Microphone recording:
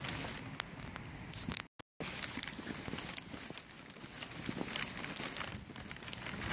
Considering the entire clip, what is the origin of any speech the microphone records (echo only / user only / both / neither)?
neither